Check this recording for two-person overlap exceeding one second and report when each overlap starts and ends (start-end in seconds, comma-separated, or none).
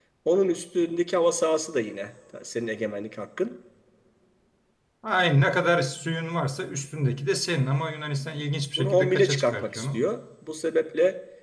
8.8-10.1